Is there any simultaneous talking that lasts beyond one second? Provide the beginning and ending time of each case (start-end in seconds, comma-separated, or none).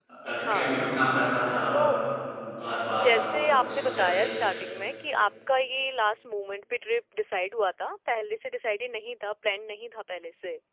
3.0-4.3